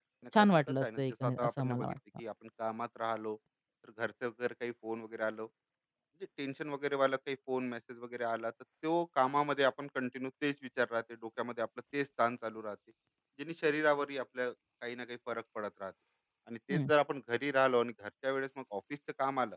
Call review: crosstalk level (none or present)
present